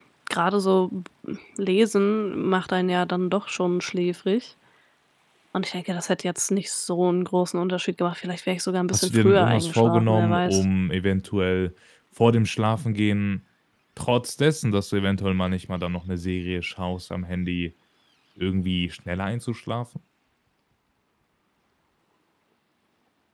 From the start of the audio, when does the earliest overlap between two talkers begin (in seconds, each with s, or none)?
8.9 s